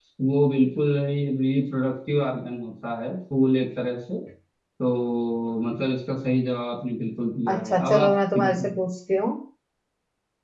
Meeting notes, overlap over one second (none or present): present